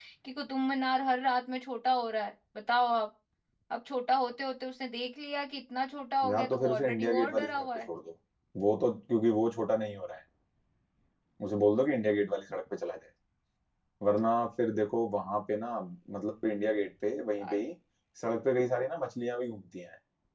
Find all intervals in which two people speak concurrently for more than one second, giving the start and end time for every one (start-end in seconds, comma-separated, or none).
6.2-7.9